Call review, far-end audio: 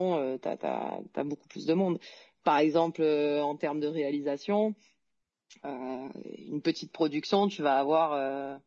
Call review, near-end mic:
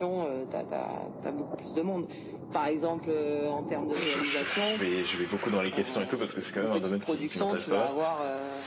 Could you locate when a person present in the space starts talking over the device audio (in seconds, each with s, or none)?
3.9 s